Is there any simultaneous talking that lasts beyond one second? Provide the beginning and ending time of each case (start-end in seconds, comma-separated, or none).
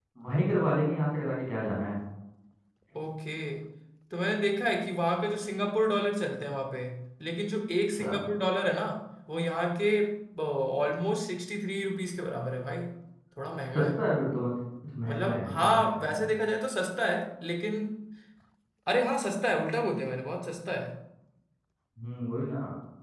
15.1-16.3